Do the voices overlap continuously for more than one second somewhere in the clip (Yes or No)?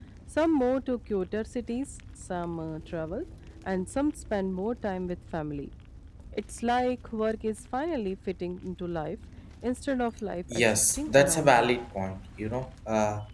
Yes